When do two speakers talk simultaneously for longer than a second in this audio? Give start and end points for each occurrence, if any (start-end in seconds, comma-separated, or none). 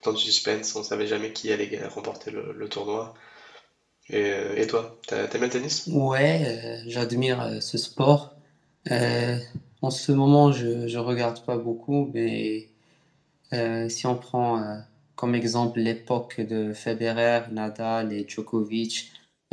none